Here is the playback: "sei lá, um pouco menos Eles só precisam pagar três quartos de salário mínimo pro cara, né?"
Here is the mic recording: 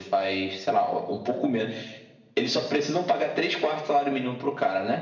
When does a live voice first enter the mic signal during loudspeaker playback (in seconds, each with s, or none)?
none